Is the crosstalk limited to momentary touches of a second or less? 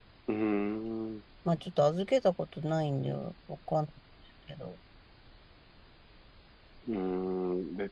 Yes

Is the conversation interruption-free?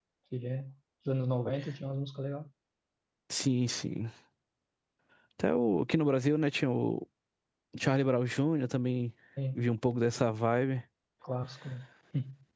Yes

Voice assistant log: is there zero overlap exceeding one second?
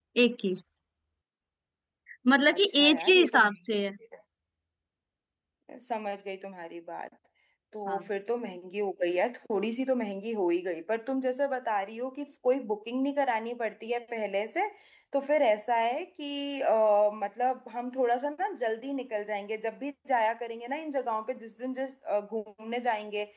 No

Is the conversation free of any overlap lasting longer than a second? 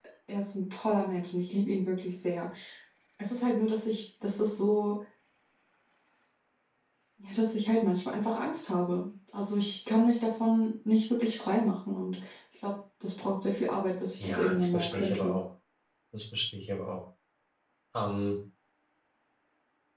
No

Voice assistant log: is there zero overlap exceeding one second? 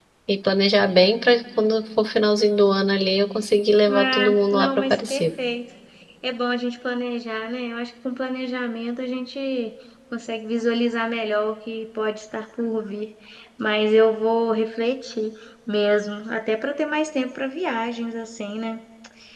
No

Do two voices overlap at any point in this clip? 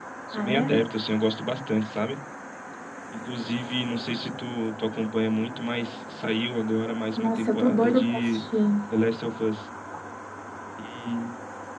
Yes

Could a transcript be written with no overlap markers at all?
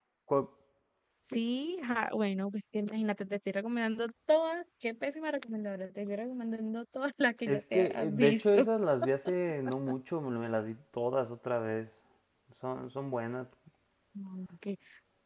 No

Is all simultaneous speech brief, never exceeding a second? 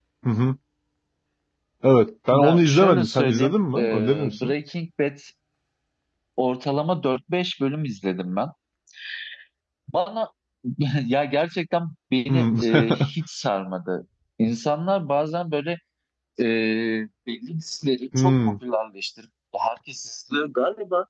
No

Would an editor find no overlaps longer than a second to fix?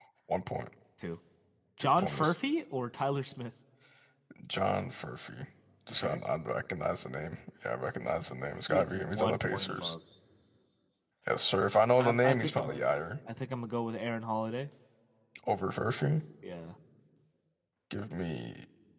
No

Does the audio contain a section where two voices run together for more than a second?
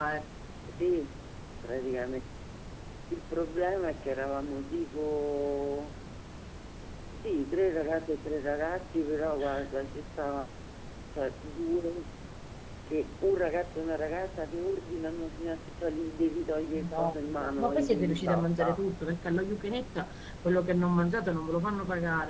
Yes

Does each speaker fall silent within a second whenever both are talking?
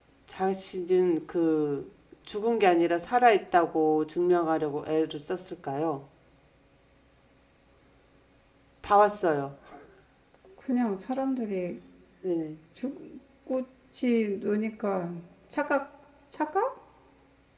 Yes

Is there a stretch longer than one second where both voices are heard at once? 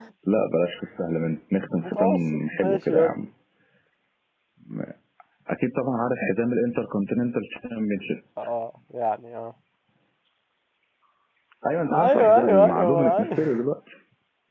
Yes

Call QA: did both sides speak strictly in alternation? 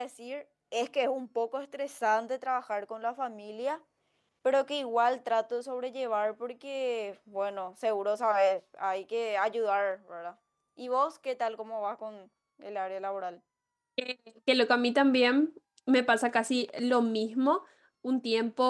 Yes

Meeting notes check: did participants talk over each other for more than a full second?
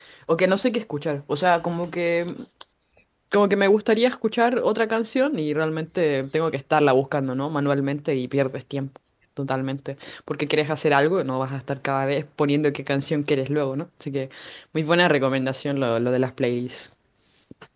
No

